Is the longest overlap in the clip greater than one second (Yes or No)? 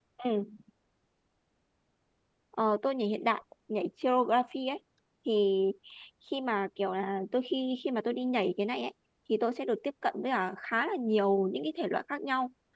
No